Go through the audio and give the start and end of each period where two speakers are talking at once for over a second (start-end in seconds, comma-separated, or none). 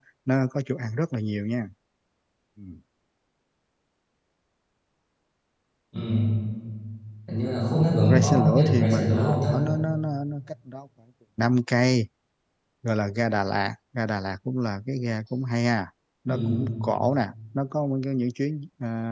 7.9-9.5